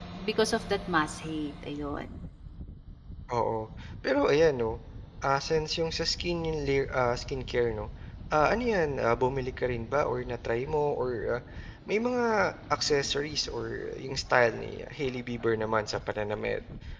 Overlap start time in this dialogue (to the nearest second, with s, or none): none